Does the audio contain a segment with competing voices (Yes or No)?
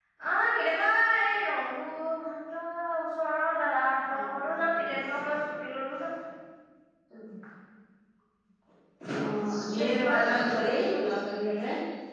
Yes